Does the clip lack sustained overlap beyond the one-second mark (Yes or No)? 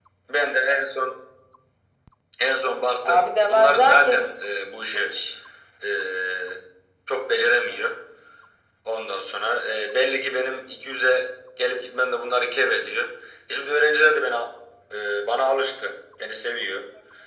No